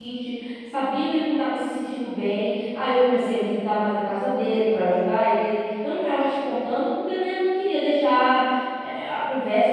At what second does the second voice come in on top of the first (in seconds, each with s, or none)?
none